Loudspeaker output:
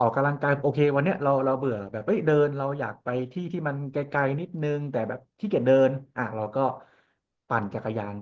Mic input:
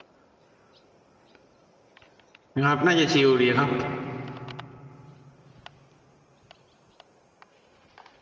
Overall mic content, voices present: user only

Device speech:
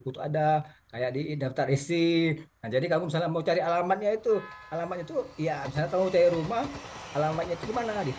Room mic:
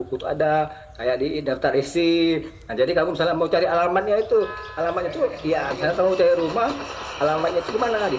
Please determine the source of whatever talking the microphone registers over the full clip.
both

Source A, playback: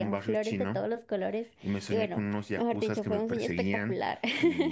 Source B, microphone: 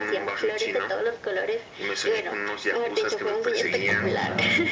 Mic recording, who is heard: both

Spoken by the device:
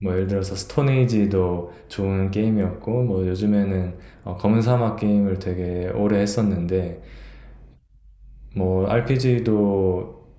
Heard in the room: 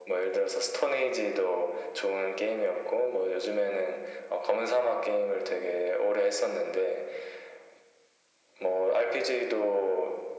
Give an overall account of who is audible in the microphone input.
echo only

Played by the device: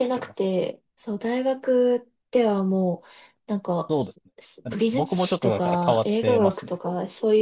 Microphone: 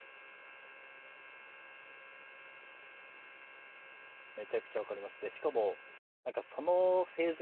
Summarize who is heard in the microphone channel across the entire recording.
user only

